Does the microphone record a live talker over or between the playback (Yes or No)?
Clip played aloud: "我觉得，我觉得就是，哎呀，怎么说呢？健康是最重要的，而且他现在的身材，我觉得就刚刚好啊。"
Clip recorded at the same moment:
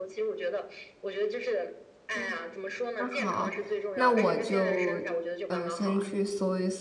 Yes